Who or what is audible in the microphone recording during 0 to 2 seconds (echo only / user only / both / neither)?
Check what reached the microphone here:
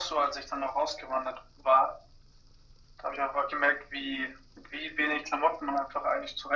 echo only